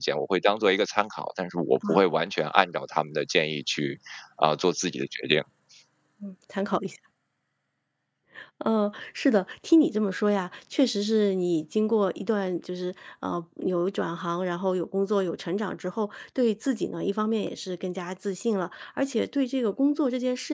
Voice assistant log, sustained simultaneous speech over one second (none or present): none